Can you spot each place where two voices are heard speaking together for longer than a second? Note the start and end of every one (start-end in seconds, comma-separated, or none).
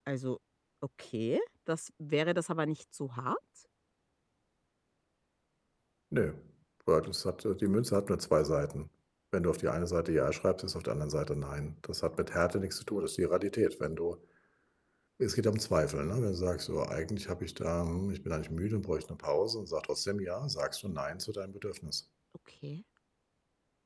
none